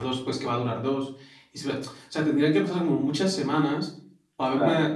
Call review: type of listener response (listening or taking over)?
listening